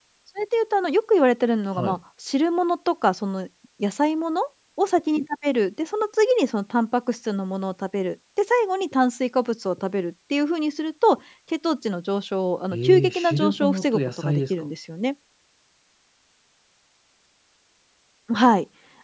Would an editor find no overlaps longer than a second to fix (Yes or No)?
No